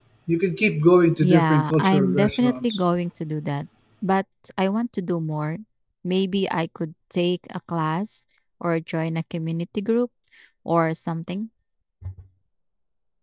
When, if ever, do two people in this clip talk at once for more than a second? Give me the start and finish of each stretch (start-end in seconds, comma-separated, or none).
1.2-2.6